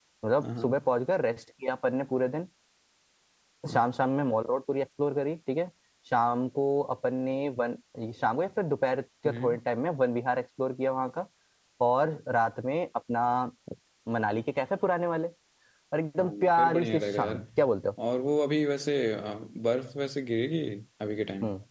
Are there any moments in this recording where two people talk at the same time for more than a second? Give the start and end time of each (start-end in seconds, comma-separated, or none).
16.2-17.4